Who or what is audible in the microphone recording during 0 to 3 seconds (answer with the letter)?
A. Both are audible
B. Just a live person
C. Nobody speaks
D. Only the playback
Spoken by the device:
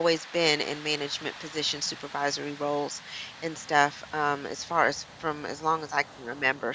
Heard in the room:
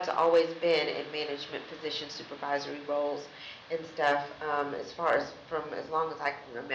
D